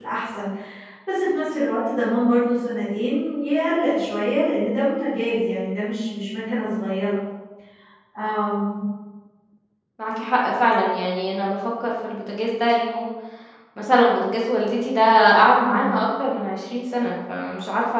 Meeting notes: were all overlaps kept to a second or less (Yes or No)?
Yes